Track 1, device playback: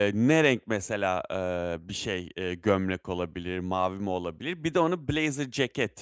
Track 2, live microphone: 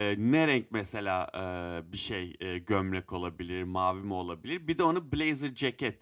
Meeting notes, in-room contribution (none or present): none